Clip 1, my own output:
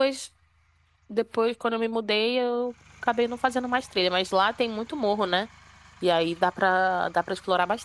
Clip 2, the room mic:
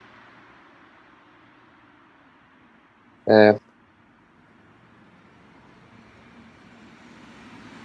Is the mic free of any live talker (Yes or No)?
No